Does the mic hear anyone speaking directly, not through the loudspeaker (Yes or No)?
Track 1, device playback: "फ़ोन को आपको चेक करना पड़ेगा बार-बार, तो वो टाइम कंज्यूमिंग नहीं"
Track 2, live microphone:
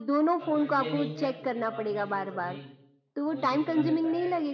Yes